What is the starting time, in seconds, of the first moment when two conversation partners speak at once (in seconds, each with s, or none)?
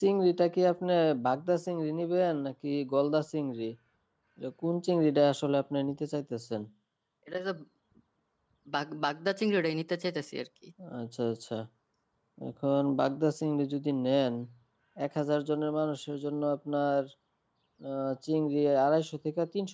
none